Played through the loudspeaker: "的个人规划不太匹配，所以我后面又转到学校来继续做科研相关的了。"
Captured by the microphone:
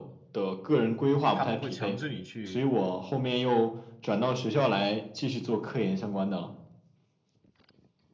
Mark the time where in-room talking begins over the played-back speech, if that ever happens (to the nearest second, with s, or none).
1 s